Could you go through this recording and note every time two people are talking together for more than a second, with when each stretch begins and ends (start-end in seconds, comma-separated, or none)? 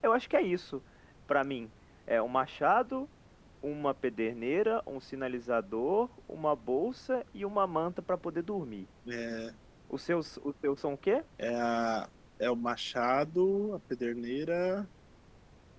none